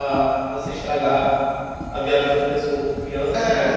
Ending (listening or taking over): taking over